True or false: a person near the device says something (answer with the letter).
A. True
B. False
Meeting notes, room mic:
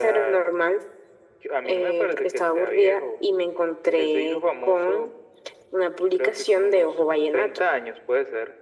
B